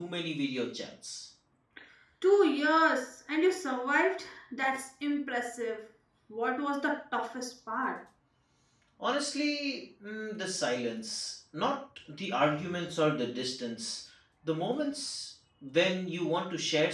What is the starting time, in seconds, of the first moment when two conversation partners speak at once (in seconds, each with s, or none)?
none